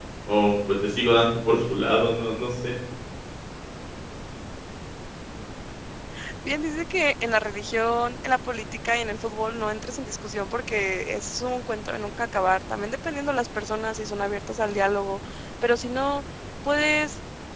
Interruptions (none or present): none